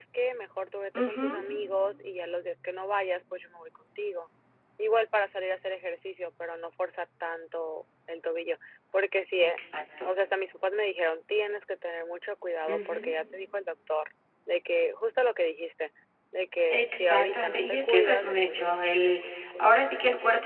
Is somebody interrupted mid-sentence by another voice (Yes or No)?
Yes